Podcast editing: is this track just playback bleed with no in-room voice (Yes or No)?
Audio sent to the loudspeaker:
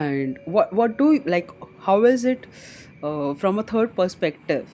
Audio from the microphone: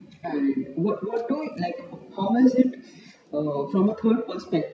Yes